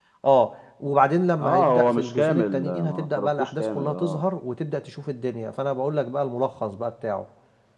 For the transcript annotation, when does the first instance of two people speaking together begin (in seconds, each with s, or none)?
1.4 s